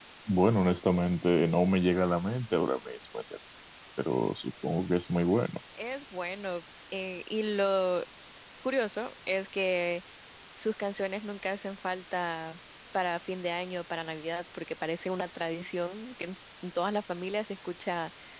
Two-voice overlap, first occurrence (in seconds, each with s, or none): none